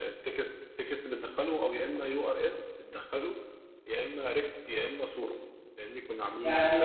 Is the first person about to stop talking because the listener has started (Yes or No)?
Yes